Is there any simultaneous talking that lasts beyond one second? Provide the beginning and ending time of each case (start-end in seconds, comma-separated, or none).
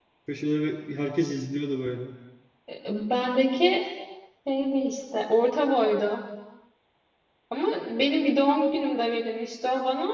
none